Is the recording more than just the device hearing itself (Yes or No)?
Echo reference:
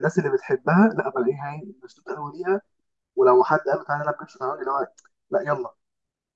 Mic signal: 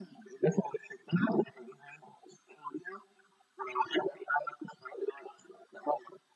No